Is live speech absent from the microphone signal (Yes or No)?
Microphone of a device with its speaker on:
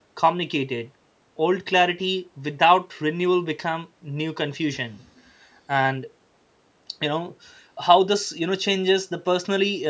No